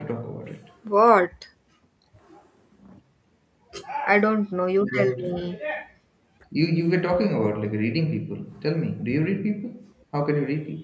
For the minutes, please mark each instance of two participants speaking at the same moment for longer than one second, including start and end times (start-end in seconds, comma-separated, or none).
none